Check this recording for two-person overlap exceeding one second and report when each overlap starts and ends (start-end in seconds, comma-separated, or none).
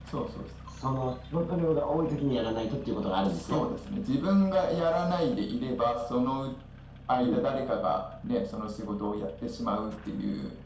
none